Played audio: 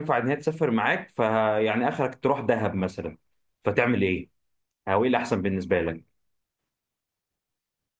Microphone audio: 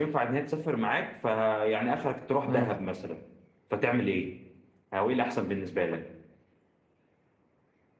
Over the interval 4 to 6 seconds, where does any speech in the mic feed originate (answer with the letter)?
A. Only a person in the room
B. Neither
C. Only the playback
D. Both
C